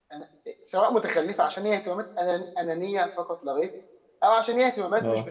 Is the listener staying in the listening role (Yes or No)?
Yes